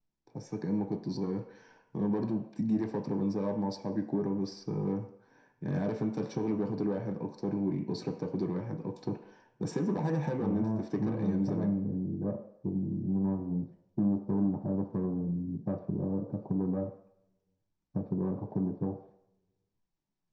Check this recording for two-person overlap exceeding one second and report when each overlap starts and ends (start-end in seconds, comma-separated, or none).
10.4-11.6